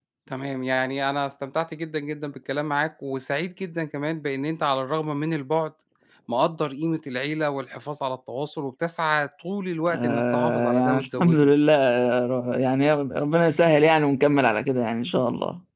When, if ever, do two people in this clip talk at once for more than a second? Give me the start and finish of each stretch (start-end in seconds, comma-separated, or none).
9.9-11.5